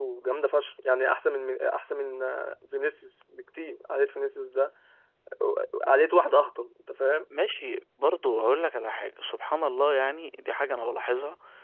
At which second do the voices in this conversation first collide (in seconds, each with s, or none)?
none